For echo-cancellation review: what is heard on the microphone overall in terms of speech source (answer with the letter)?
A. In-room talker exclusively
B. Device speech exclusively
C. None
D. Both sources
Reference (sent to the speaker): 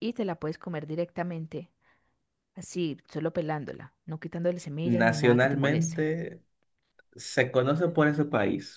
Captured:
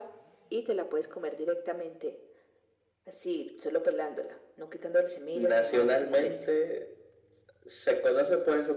B